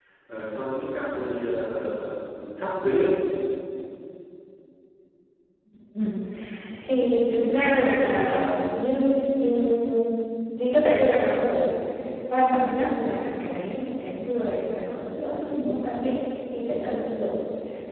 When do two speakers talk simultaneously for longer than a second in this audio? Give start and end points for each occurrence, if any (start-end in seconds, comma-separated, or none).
none